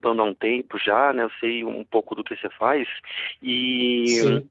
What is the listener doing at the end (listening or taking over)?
listening